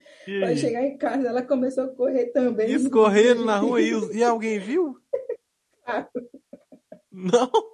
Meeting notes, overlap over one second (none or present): present